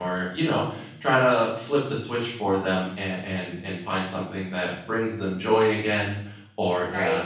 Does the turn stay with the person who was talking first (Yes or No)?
Yes